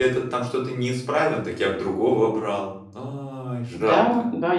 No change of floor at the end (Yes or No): No